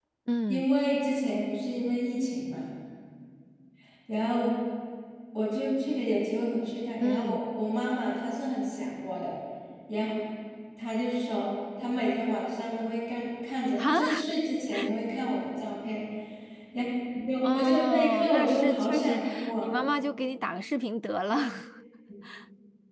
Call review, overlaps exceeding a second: present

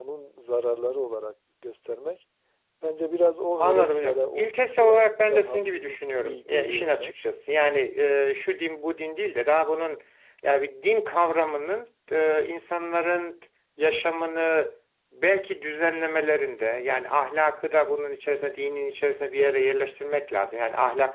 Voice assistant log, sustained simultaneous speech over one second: present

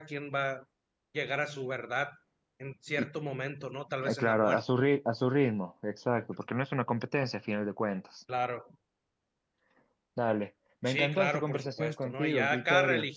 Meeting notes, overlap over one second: present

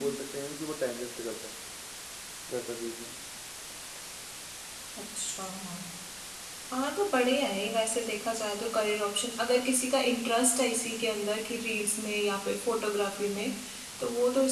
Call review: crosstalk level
none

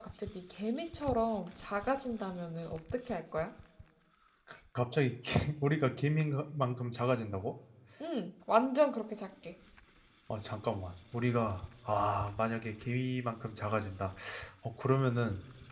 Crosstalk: none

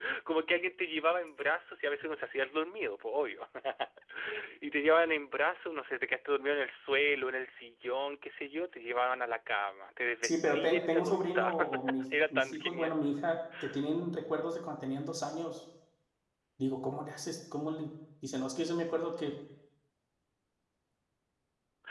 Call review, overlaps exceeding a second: present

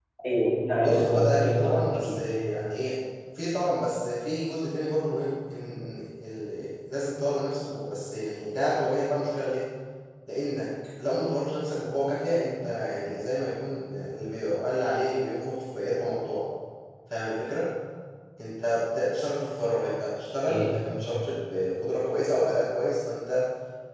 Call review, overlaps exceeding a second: present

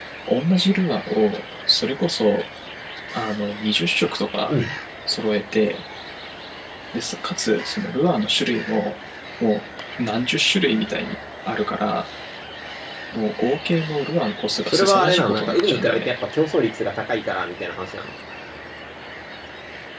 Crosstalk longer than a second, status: present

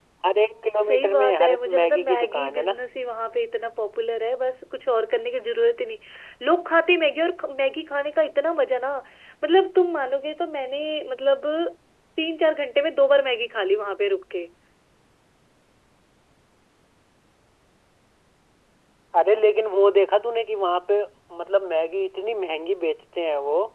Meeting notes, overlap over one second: present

